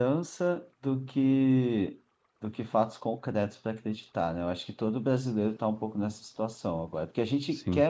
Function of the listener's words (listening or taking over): listening